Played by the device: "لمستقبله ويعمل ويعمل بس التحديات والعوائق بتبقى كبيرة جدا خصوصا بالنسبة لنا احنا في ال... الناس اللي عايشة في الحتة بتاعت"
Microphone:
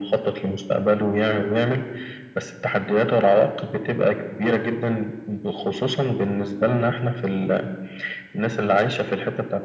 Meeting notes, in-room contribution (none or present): none